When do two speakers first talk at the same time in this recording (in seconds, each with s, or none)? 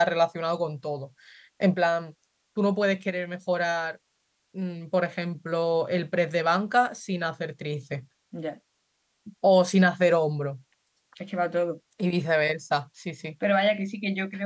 none